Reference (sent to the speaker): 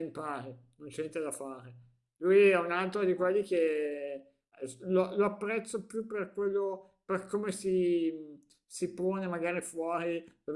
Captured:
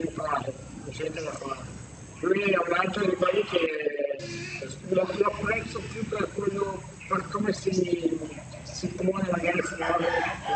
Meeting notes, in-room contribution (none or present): none